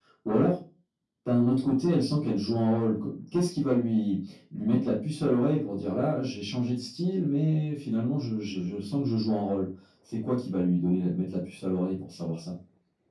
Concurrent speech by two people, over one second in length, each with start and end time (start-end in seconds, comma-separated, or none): none